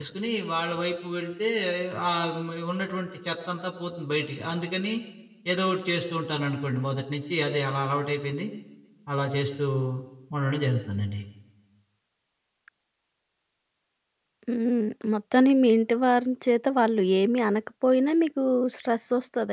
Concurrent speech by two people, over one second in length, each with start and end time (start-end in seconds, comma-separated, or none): none